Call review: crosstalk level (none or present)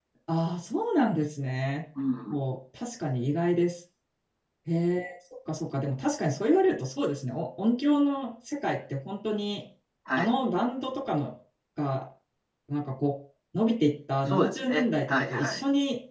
present